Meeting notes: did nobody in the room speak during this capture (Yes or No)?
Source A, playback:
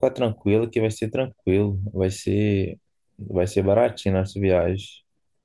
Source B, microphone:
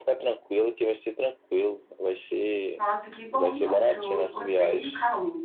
No